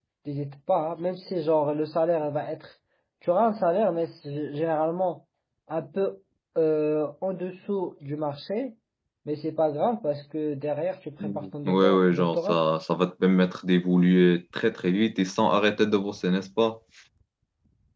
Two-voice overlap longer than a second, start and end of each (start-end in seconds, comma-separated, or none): 11.2-12.6